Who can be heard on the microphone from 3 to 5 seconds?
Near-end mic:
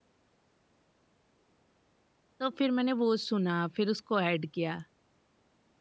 user only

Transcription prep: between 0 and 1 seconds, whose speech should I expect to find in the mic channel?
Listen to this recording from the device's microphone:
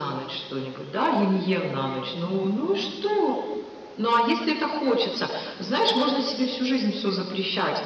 echo only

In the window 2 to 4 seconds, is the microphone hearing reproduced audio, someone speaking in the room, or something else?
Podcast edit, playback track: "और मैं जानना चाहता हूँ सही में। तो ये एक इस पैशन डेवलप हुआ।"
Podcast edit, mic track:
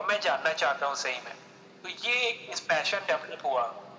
echo only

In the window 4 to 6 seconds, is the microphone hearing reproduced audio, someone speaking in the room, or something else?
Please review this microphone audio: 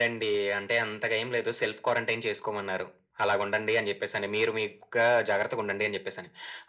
echo only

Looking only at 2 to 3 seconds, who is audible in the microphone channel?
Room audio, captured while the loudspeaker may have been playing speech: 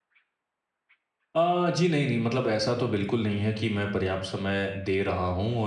user only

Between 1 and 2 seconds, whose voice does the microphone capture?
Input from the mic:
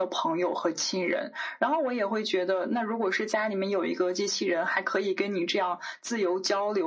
echo only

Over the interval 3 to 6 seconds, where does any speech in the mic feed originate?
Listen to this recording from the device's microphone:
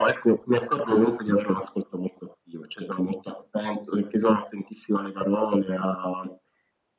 echo only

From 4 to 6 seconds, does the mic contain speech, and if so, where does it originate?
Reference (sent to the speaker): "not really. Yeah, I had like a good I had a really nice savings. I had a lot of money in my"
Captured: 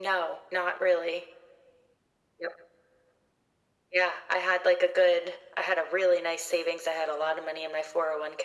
echo only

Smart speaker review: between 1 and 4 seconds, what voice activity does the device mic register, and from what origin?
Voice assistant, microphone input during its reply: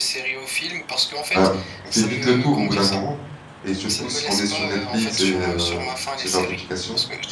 both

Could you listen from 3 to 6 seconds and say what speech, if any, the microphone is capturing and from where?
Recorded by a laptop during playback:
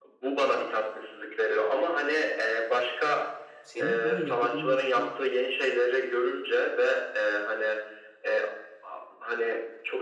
both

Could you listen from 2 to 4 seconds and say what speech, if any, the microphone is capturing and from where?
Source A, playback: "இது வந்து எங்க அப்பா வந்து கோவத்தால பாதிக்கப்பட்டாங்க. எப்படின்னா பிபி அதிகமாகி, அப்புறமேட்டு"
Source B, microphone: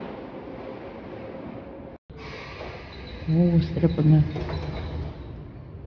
user only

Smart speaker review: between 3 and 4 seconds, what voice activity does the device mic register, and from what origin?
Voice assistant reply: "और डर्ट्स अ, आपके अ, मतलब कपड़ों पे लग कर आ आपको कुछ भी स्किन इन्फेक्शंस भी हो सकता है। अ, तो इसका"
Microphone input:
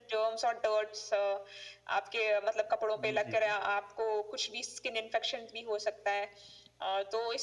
both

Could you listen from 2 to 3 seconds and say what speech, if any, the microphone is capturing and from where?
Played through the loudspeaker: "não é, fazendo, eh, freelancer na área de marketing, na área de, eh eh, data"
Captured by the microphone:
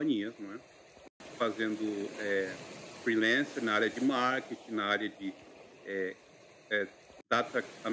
echo only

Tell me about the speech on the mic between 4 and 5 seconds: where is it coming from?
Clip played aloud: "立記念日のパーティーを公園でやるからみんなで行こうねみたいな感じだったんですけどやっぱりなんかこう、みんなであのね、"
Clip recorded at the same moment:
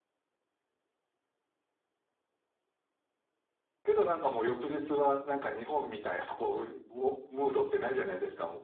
user only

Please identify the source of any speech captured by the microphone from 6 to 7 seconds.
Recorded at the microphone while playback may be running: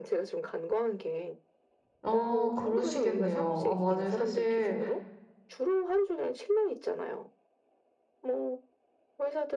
echo only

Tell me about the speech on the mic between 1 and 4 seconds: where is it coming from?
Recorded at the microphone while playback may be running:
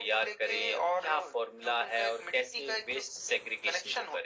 echo only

